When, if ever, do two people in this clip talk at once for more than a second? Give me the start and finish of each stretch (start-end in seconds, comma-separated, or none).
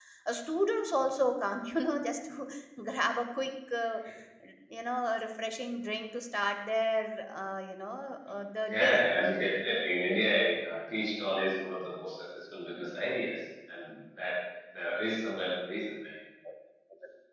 none